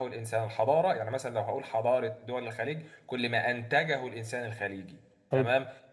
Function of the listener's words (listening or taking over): listening